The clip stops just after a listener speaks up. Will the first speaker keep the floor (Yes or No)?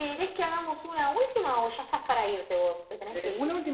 No